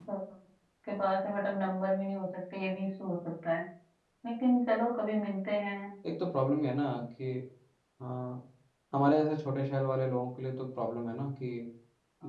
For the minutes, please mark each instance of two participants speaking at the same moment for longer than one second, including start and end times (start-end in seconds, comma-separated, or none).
none